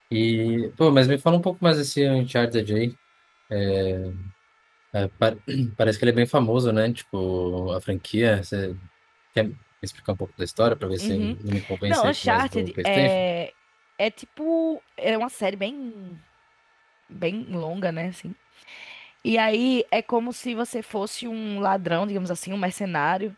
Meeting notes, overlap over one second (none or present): present